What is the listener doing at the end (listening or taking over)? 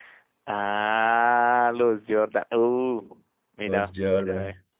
listening